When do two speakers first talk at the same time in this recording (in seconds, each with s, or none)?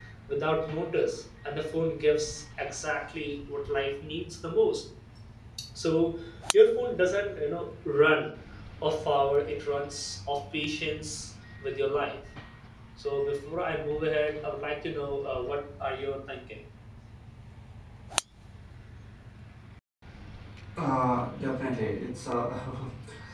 none